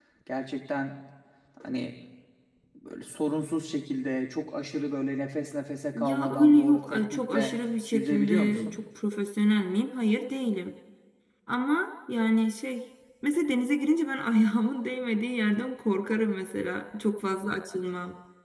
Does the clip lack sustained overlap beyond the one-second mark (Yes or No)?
No